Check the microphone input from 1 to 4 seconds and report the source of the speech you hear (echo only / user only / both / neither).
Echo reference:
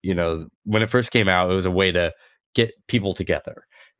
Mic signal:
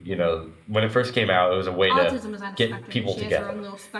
both